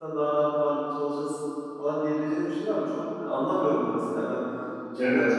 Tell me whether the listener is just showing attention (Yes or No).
No